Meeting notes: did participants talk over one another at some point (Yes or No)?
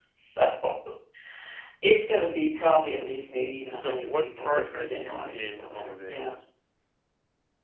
Yes